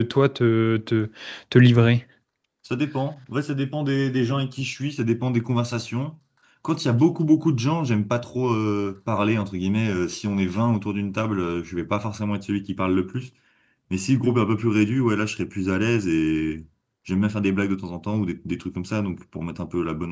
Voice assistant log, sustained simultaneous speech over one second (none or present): none